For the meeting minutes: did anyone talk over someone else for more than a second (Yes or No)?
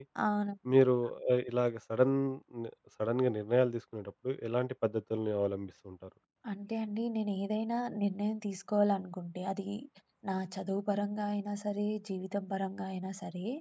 No